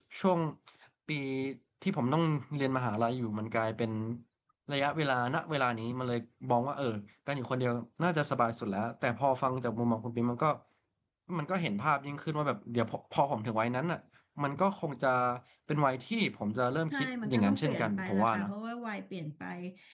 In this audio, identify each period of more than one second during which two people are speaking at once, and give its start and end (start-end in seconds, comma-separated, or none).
16.9-18.5